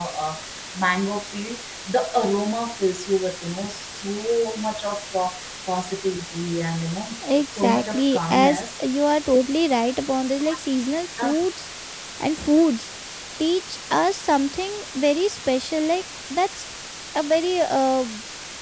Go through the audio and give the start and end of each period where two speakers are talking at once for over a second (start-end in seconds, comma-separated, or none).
7.4-8.6